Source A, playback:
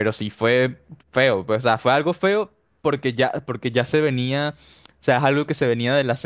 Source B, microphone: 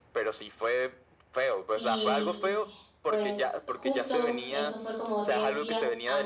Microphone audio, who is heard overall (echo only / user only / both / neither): both